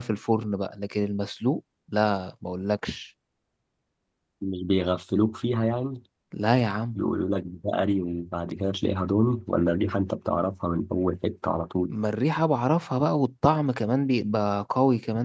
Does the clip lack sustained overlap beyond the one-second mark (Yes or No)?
Yes